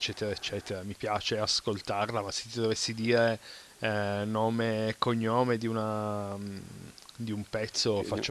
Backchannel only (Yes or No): Yes